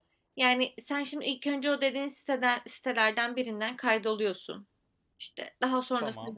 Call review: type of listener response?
listening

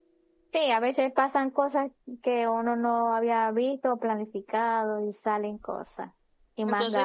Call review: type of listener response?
taking over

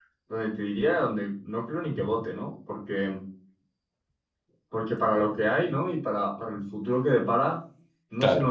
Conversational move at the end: listening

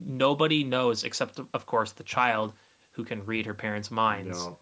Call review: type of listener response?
listening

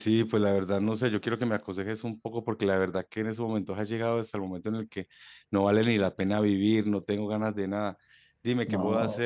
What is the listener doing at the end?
listening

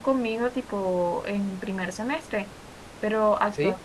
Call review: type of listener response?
listening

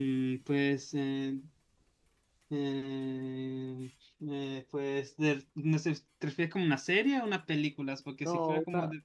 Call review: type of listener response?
taking over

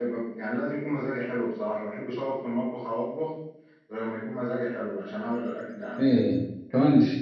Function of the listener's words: taking over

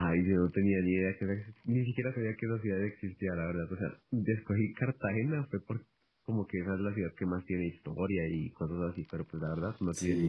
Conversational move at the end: taking over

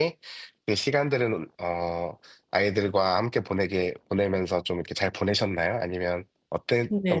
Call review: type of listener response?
taking over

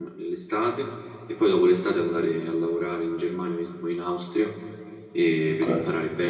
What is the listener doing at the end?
listening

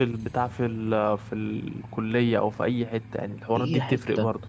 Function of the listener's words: taking over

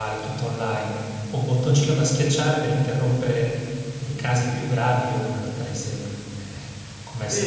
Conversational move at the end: taking over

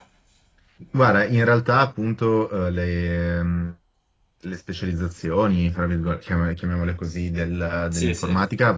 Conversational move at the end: listening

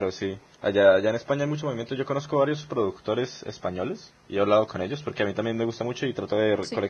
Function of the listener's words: listening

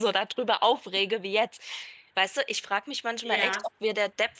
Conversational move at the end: listening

